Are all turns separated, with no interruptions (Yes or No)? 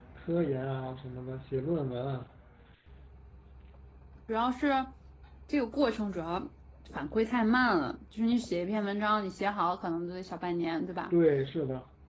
Yes